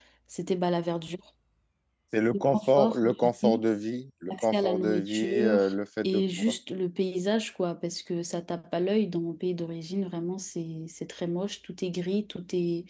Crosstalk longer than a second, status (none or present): present